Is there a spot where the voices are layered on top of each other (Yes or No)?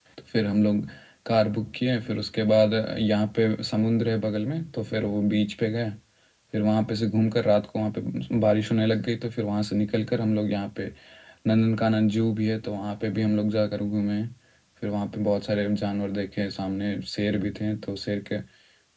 No